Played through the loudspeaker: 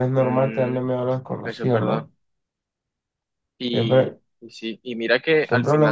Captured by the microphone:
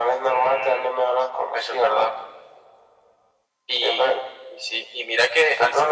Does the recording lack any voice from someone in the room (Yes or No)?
Yes